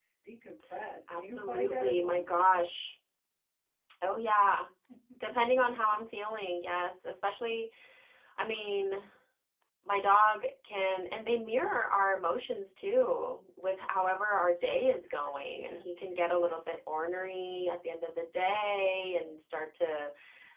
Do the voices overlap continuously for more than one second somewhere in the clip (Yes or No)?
Yes